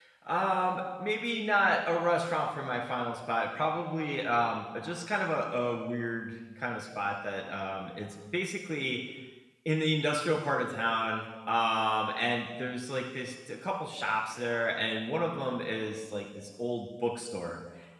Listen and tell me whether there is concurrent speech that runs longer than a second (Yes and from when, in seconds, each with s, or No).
No